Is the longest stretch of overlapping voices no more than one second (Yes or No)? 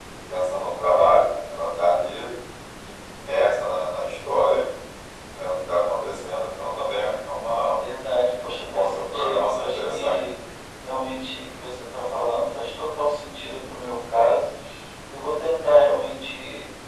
No